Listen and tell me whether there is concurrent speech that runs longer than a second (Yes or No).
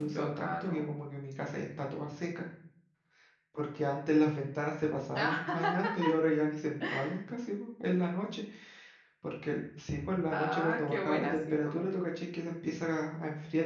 Yes